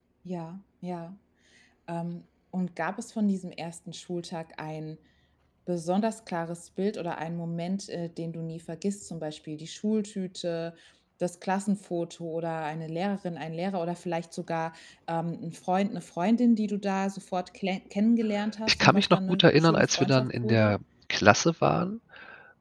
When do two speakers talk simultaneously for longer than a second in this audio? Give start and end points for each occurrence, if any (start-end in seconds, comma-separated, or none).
18.7-20.7